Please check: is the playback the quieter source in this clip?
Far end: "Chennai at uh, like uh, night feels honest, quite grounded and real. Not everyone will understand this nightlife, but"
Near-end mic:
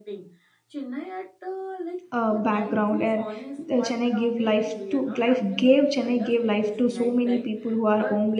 Yes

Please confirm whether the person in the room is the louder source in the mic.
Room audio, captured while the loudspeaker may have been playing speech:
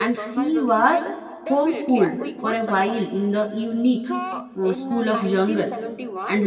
Yes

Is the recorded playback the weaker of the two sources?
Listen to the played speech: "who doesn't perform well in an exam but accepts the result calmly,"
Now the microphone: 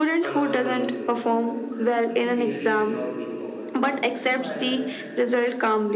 No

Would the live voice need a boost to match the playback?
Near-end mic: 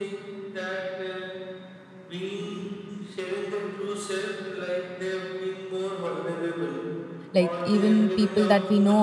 No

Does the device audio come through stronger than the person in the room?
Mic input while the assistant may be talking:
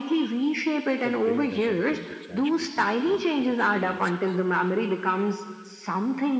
Yes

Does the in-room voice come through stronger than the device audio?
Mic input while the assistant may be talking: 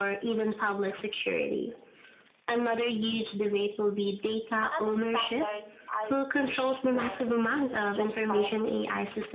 No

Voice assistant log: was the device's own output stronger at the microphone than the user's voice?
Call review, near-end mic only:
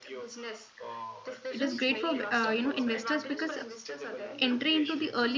No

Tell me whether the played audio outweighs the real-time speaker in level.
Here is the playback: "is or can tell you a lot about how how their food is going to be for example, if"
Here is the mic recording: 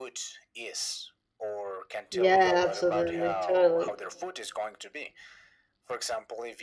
No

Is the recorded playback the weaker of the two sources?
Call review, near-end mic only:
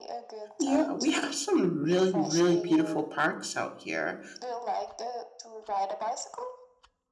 Yes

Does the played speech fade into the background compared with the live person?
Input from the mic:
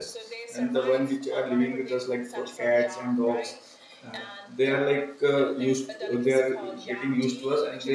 Yes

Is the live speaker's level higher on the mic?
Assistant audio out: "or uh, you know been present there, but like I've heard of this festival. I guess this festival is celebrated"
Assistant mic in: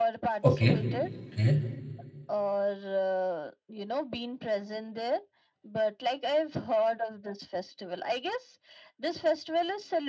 Yes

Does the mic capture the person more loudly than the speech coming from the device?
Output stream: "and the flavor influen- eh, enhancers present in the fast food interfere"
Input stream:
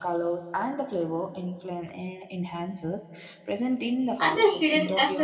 Yes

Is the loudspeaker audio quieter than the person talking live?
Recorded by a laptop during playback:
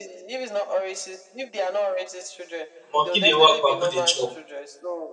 Yes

